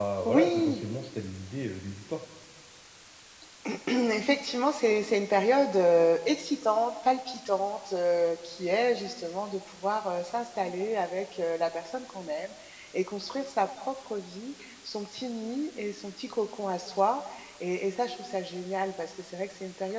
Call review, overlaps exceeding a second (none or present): none